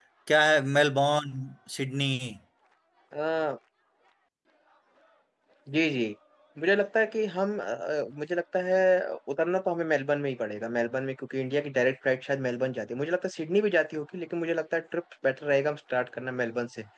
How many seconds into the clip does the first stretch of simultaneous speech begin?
none

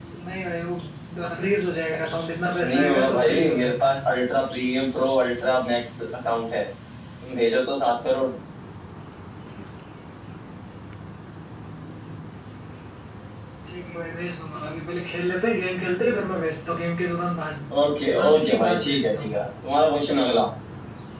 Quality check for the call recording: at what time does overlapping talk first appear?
3 s

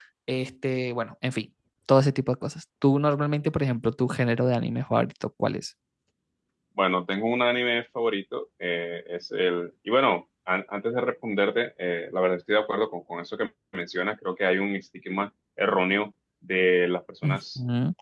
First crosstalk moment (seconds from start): none

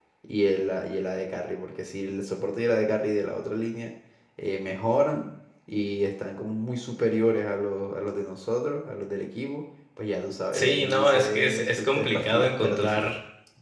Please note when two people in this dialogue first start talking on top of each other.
11 s

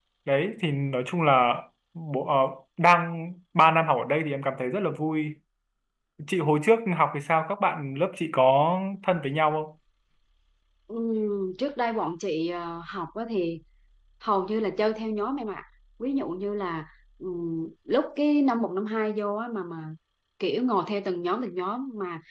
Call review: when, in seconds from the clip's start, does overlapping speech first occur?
none

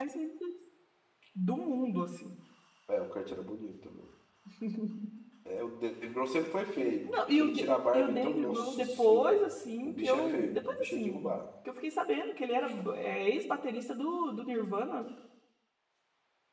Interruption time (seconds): 7 s

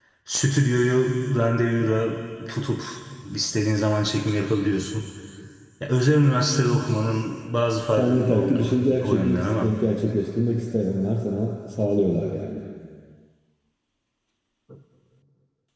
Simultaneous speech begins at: 8 s

